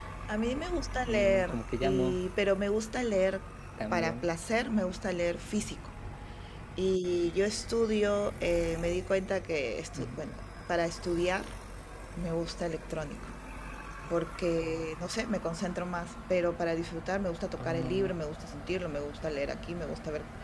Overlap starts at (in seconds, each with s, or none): 0.9 s